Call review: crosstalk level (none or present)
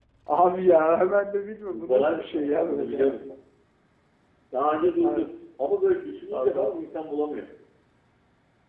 present